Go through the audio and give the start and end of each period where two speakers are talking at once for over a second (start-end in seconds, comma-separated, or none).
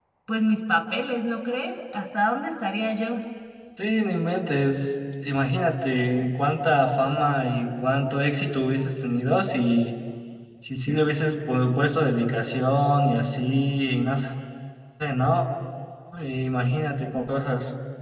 none